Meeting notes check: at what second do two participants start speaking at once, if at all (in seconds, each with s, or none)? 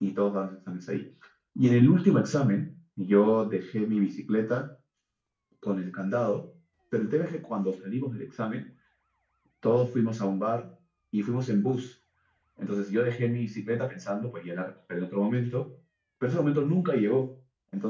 none